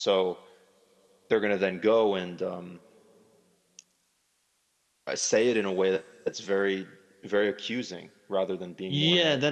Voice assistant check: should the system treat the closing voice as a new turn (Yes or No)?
Yes